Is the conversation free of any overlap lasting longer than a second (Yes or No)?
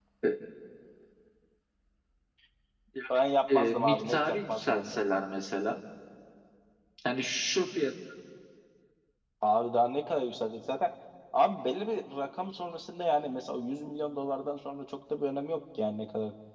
No